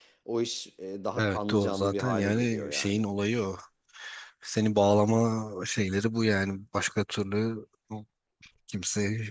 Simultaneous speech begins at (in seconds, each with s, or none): 1.2 s